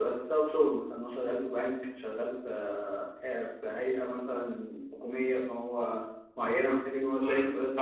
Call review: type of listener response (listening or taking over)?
taking over